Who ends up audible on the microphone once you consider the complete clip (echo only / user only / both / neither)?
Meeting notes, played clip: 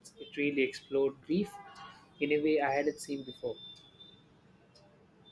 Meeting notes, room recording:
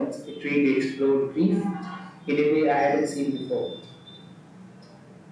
echo only